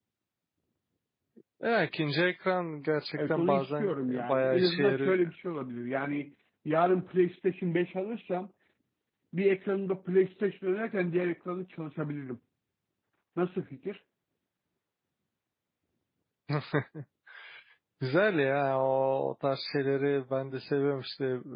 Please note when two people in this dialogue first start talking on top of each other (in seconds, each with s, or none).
3.2 s